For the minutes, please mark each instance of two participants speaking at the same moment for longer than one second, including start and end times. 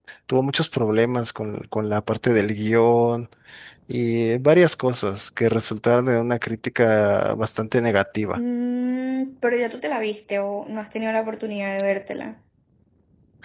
none

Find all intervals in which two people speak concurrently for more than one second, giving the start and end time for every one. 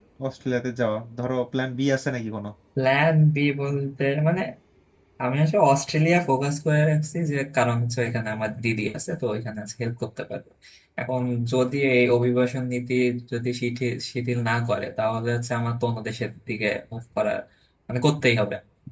none

